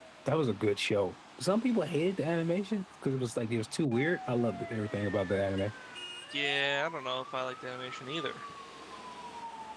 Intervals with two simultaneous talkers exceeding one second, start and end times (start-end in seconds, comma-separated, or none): none